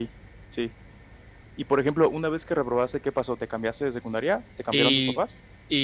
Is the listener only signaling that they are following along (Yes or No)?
No